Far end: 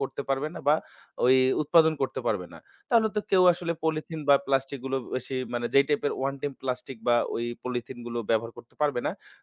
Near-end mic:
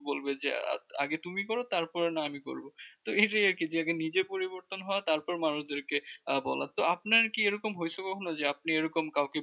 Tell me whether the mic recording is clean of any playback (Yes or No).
Yes